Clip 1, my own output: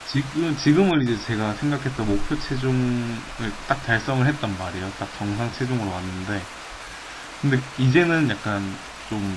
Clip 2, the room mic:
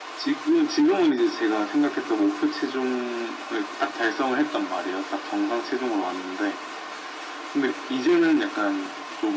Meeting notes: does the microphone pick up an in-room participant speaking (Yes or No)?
No